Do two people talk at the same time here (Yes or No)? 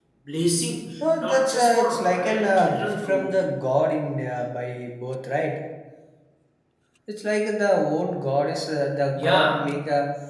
Yes